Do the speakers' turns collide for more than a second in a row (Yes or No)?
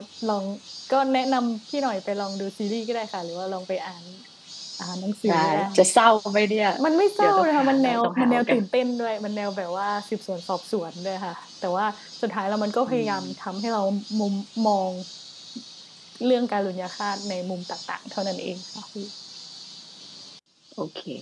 Yes